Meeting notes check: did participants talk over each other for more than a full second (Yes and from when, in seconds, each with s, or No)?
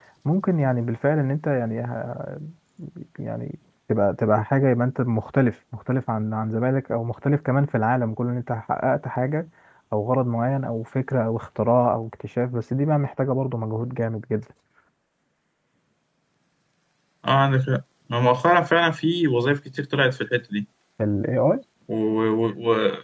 No